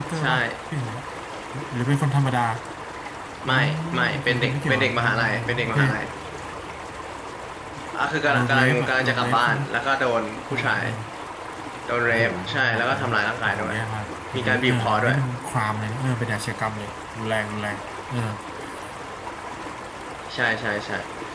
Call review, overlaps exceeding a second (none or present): present